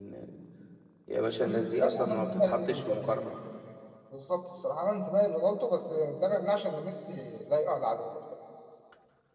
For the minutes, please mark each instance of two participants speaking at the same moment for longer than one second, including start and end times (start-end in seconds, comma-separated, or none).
1.4-3.2